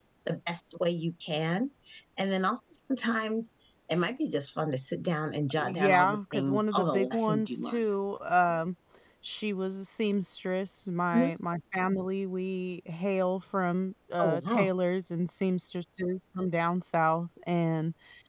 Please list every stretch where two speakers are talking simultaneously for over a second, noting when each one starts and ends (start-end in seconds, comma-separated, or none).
5.6-7.9